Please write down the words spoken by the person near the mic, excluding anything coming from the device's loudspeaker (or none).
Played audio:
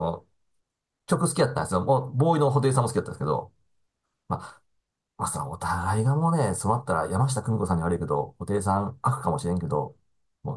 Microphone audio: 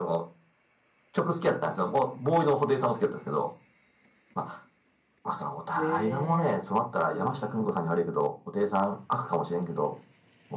ねえ。うん。